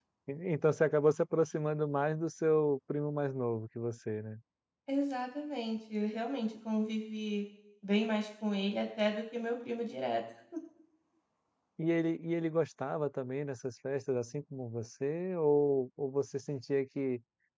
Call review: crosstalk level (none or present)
none